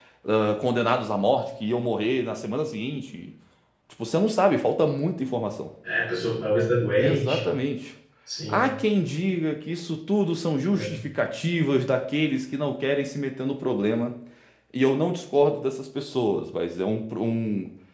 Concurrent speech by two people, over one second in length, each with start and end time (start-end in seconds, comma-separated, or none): none